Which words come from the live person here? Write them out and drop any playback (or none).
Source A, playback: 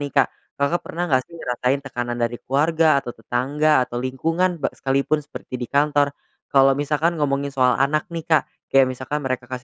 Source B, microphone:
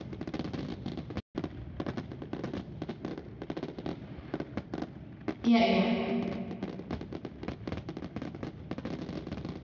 Iya iya.